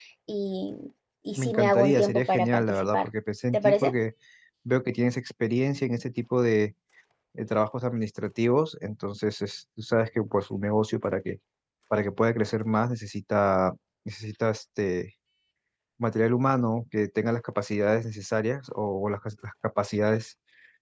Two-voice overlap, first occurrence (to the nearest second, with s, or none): 1 s